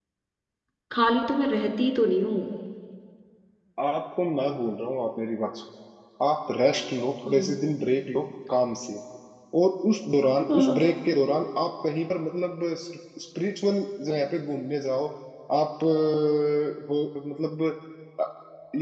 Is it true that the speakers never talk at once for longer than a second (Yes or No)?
Yes